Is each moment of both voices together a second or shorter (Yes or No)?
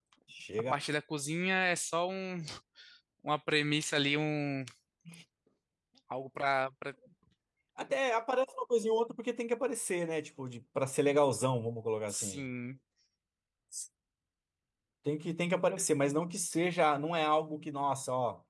Yes